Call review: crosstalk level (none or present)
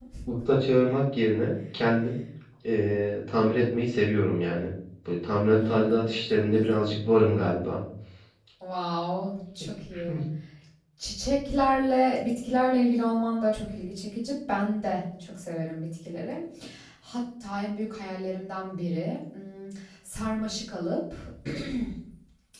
present